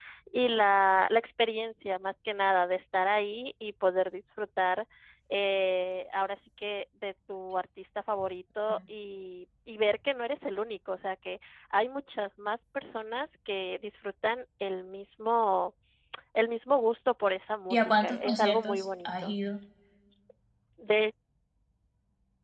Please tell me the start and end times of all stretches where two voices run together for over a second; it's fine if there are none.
17.7-19.3

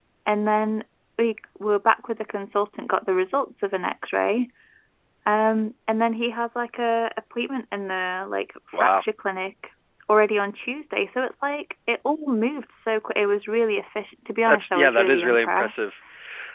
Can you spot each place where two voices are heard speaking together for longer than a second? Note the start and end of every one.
14.5-15.7

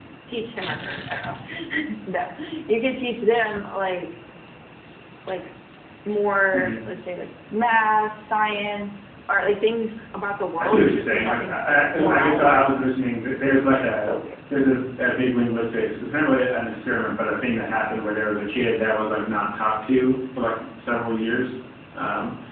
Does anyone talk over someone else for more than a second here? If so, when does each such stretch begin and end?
10.6-12.7

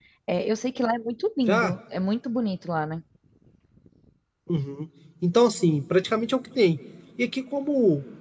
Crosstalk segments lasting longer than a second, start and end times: none

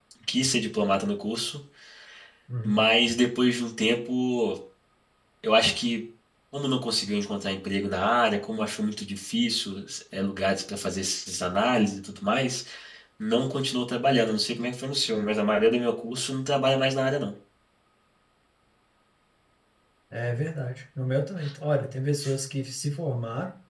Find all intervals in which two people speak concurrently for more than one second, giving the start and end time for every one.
none

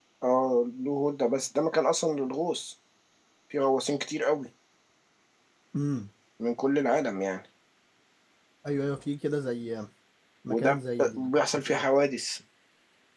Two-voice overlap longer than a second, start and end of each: 10.5-11.9

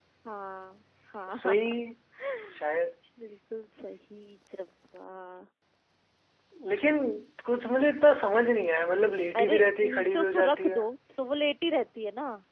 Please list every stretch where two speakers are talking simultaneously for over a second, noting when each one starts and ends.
9.4-10.8

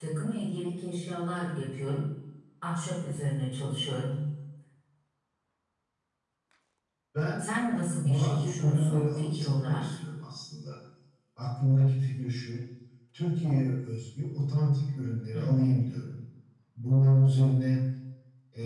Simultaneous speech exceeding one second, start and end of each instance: 8.0-9.8

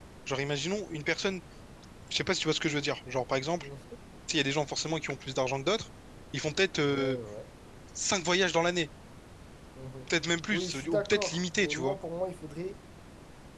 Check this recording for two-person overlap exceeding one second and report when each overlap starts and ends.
10.5-12.0

